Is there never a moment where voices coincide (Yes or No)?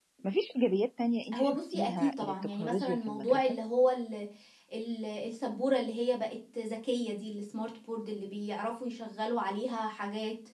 No